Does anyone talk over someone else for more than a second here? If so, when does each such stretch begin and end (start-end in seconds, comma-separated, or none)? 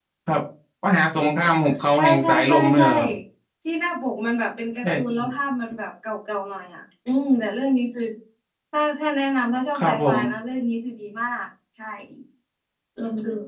1.4-2.9